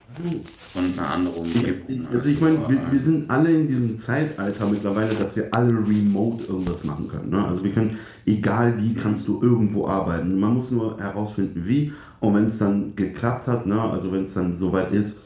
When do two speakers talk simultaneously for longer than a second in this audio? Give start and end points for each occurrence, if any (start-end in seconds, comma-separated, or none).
1.5-3.0